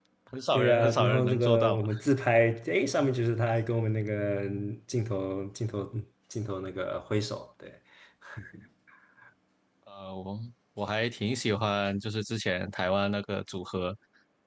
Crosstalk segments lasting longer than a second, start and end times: 0.5-1.8

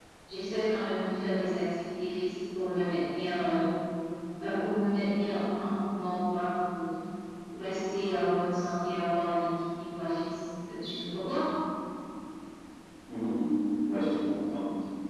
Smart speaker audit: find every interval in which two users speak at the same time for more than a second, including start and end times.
none

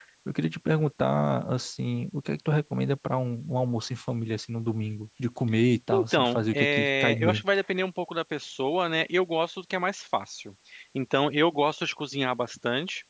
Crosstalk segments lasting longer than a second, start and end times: 5.9-7.4

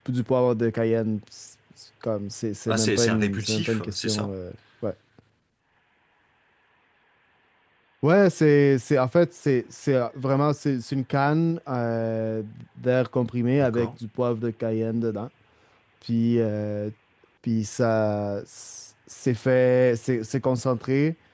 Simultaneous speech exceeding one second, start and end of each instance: 2.7-4.3

